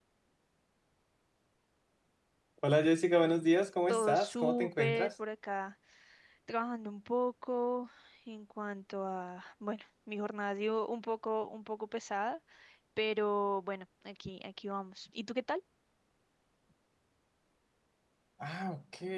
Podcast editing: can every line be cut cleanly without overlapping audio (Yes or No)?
No